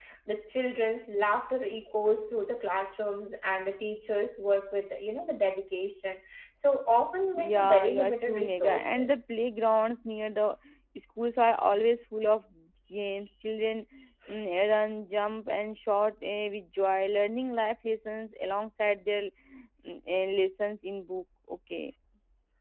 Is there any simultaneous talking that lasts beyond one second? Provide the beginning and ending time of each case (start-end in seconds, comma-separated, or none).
7.3-9.2